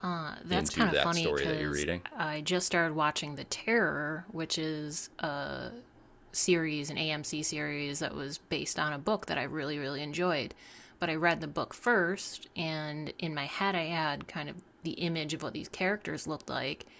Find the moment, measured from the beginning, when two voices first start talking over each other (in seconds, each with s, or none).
0.5 s